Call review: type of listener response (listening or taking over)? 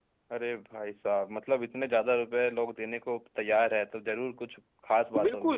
taking over